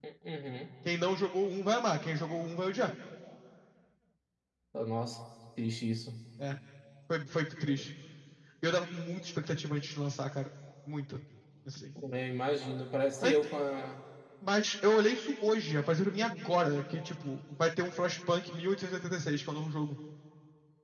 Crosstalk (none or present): none